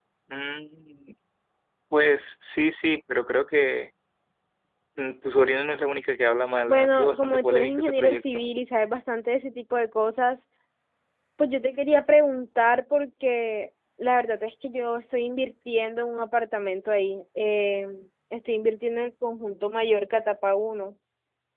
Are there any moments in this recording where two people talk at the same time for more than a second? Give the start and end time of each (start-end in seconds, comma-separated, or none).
6.7-8.4